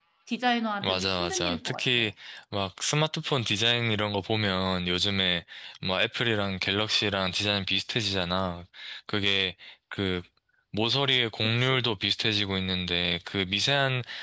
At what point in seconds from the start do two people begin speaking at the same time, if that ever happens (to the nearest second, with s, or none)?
1 s